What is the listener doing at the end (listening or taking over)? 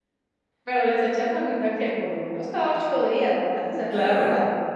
taking over